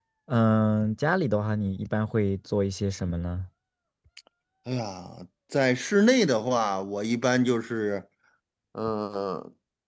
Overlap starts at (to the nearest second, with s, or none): none